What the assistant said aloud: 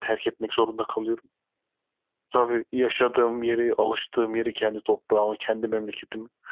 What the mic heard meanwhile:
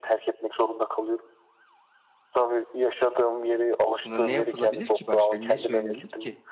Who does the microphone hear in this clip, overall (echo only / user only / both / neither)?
both